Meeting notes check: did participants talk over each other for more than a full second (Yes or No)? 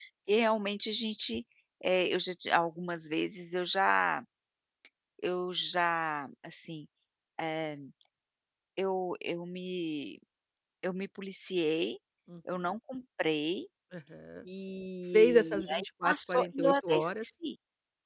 Yes